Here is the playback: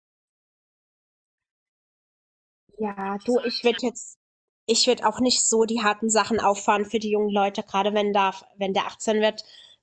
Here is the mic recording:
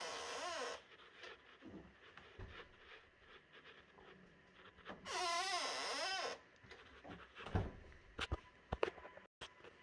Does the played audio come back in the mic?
No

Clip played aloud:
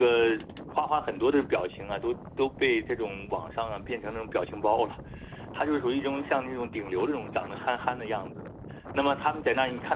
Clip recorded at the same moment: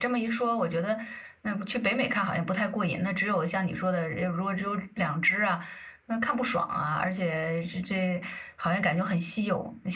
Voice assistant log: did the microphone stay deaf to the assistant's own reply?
Yes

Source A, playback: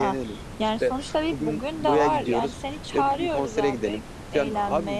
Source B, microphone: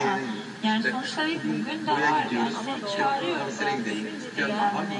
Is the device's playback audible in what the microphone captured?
Yes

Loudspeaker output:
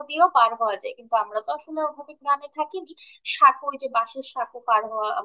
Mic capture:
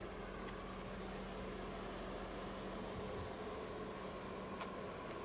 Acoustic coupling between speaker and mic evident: No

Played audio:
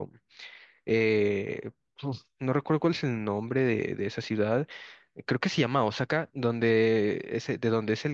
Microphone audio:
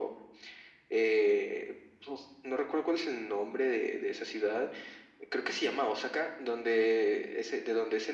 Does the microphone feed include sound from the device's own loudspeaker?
Yes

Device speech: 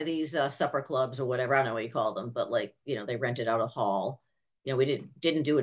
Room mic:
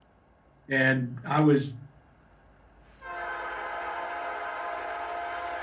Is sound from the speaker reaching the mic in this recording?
No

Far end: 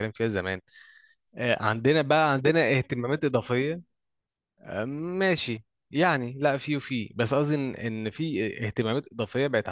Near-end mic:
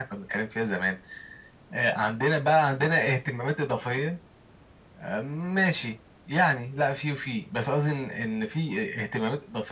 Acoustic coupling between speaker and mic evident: Yes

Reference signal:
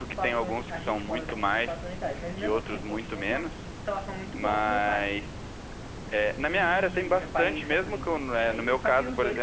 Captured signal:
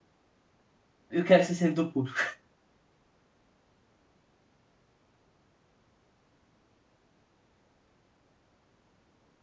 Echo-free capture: Yes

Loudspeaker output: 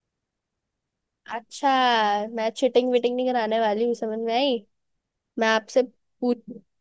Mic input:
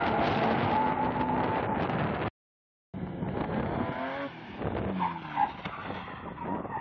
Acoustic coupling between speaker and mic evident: No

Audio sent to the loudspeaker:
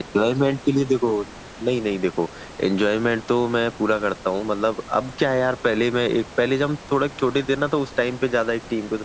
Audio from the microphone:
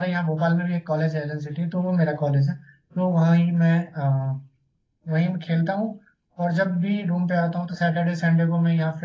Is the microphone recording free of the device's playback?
Yes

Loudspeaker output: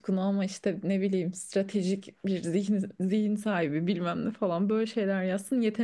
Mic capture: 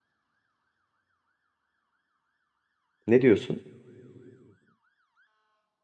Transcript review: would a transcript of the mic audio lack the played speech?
Yes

